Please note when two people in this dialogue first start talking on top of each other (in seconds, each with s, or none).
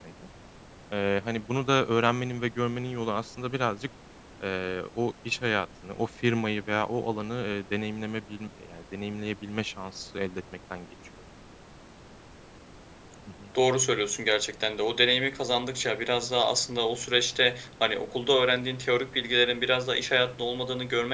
none